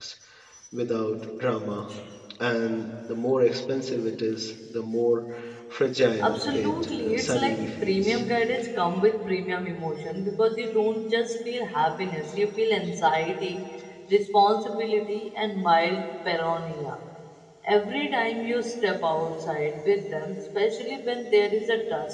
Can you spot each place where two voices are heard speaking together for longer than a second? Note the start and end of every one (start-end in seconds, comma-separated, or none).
6.2-8.2